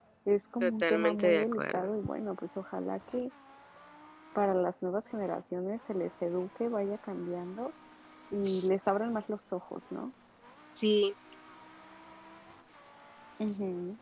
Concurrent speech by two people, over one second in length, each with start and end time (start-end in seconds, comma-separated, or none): 0.6-1.9